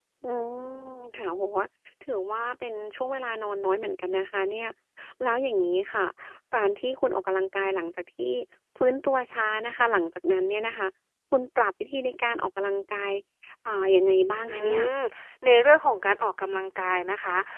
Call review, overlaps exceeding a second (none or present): none